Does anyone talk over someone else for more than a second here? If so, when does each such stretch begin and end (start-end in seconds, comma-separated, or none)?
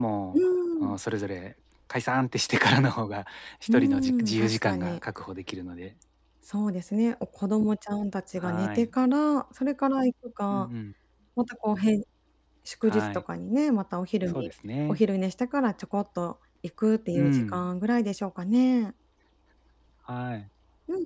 3.7-5.0